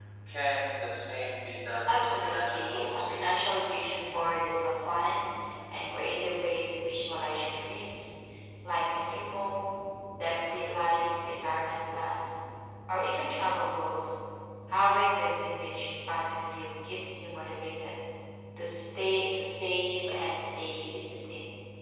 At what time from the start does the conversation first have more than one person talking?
2 s

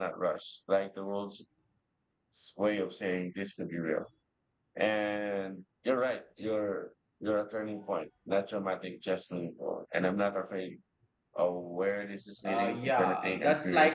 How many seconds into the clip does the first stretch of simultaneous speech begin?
12 s

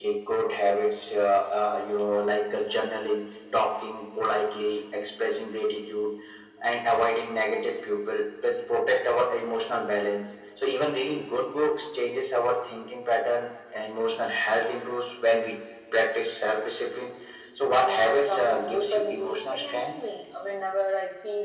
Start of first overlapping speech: 18 s

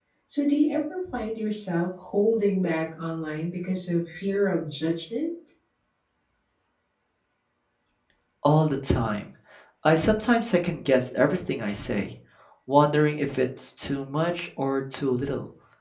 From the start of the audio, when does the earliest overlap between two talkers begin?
none

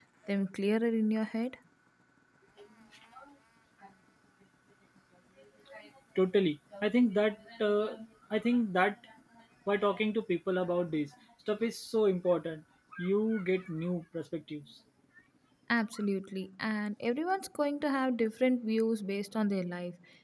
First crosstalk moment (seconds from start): none

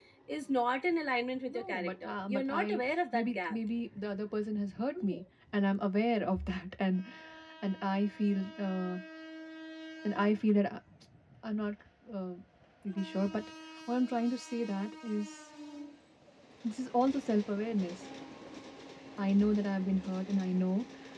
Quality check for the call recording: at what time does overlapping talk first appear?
1 s

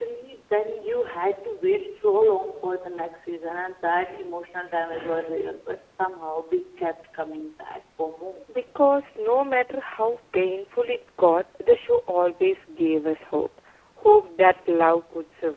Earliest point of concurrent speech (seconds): none

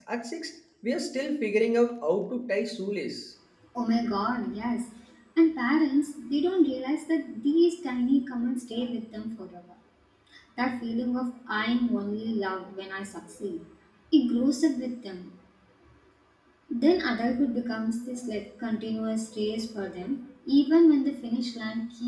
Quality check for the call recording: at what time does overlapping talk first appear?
none

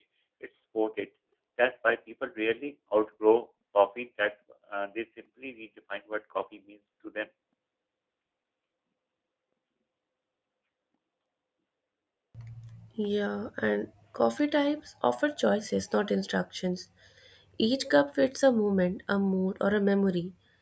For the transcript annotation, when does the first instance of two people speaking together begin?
none

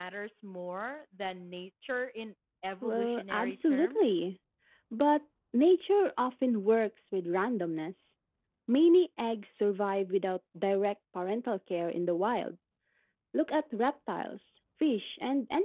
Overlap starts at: 3 s

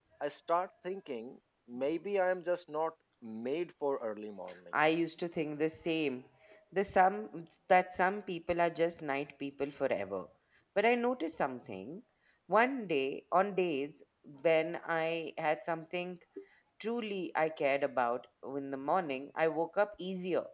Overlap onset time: none

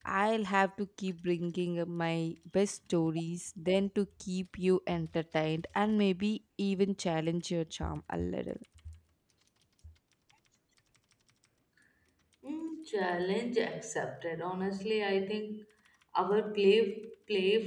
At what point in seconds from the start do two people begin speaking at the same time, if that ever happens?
none

